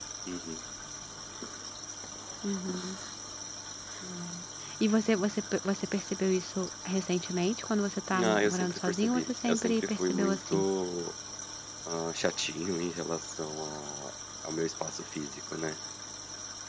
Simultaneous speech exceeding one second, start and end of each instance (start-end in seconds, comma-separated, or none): 8.2-10.6